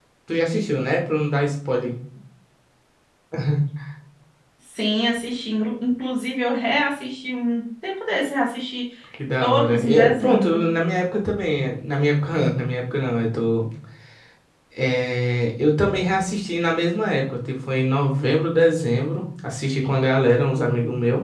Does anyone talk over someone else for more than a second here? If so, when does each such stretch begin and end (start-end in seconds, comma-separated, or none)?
9.4-10.7